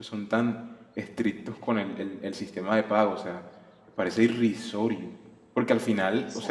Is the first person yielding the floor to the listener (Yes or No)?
No